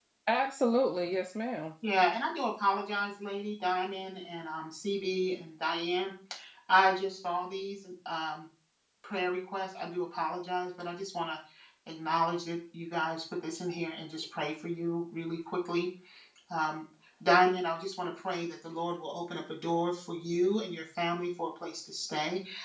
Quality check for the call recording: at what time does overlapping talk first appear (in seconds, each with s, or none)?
none